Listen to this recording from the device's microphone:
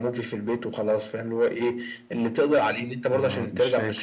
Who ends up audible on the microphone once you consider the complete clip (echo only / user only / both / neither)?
both